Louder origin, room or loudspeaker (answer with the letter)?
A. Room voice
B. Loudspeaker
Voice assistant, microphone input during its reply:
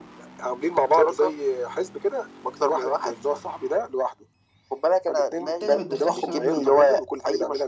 B